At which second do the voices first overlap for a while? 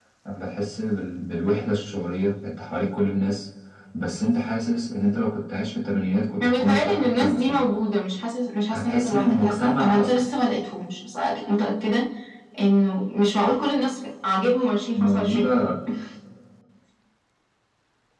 6.4 s

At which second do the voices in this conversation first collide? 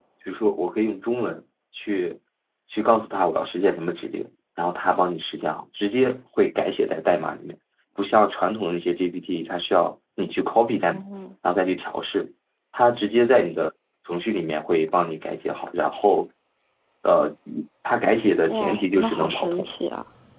18.5 s

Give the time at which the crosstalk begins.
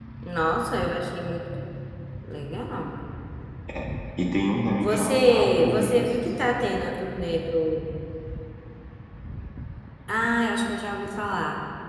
4.8 s

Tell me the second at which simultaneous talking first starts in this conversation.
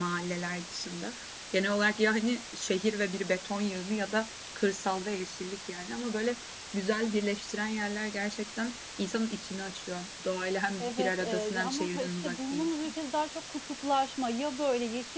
10.8 s

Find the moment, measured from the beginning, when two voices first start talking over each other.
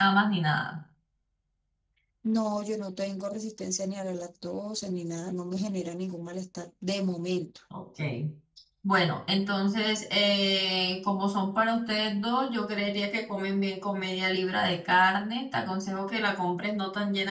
none

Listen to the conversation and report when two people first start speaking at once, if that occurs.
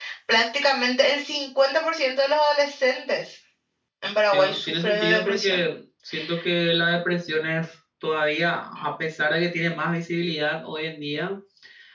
4.3 s

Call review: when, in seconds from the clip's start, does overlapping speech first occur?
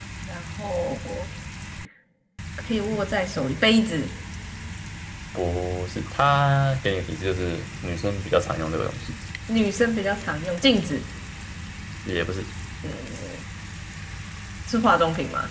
none

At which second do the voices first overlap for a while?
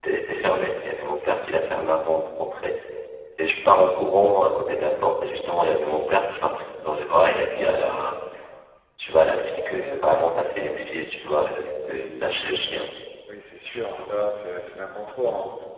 none

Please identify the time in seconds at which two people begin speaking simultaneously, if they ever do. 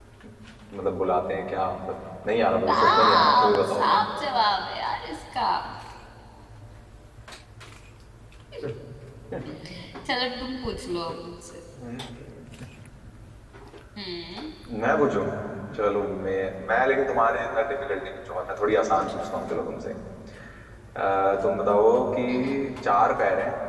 2.7 s

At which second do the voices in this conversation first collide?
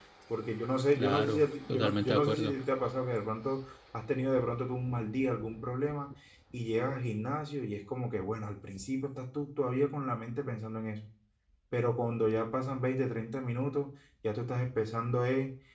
0.9 s

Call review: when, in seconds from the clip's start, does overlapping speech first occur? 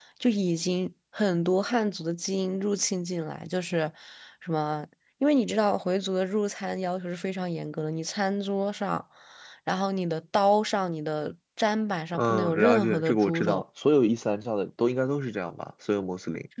12.1 s

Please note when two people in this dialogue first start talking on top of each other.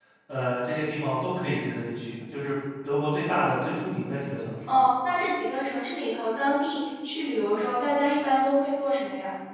none

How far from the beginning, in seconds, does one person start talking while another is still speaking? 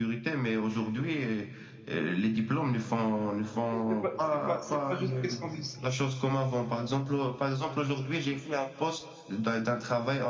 3.7 s

